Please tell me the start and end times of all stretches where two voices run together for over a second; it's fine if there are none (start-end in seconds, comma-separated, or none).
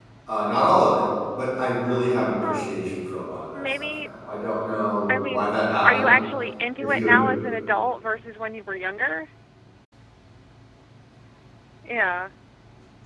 none